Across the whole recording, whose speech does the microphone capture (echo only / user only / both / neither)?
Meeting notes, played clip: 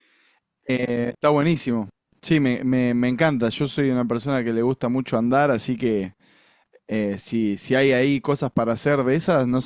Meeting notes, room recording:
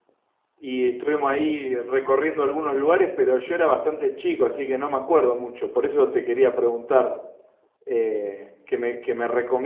user only